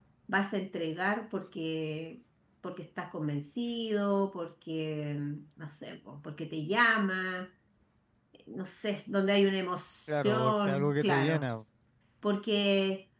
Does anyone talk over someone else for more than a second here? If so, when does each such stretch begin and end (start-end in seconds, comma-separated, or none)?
10.1-11.5